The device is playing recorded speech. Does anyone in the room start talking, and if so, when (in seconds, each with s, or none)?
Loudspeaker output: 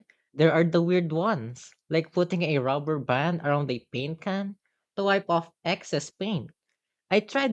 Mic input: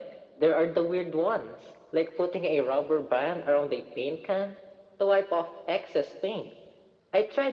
none